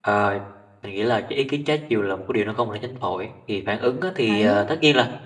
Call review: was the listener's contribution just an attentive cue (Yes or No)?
Yes